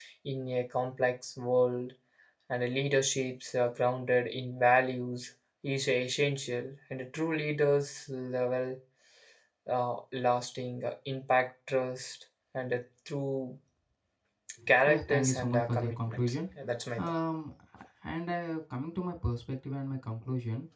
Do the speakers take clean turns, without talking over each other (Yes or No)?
No